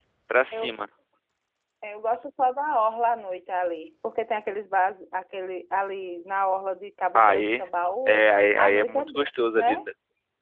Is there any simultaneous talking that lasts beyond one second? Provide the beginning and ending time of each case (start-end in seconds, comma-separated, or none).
8.6-9.8